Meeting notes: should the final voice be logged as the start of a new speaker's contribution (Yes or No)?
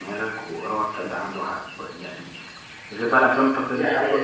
No